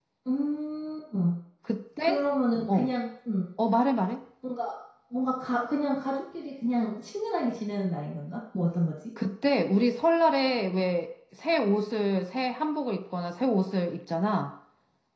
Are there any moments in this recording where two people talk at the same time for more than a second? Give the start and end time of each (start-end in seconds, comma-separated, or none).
none